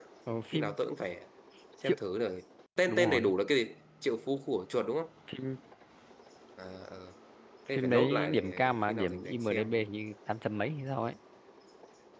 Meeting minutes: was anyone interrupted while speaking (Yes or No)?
Yes